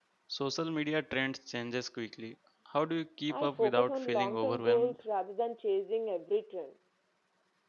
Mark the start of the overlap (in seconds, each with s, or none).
3.3 s